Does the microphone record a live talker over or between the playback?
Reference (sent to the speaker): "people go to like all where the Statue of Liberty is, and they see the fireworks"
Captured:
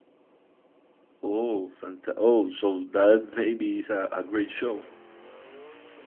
Yes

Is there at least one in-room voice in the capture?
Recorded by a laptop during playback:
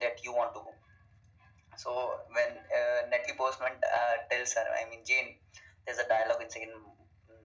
No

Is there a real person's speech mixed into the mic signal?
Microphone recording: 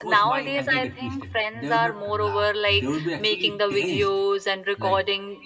Yes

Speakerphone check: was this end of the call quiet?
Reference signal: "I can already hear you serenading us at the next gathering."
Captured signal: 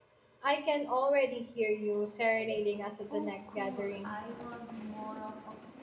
No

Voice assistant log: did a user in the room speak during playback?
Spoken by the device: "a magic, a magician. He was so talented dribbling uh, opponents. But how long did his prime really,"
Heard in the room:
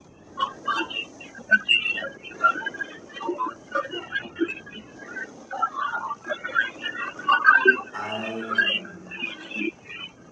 Yes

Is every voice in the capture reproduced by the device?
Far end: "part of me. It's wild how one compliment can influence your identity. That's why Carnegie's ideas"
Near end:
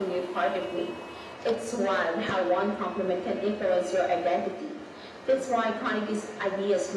Yes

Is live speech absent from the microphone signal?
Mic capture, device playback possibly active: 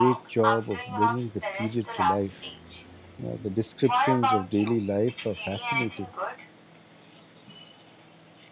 No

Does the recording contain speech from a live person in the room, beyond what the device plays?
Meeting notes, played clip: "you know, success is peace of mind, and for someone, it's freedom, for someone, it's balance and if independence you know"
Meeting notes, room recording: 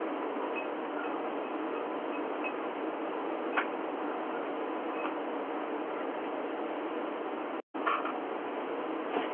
No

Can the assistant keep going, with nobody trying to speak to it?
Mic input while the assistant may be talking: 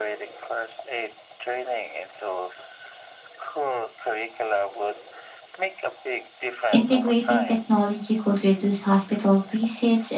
No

